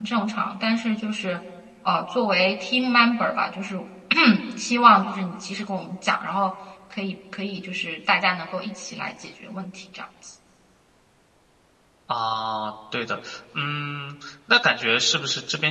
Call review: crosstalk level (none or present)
none